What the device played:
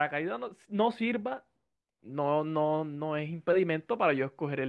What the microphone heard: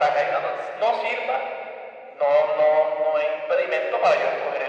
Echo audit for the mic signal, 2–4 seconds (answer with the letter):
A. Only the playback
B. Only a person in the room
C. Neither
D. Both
A